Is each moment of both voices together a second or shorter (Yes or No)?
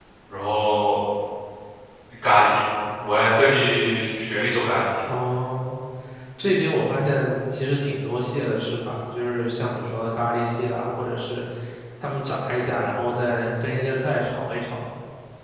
Yes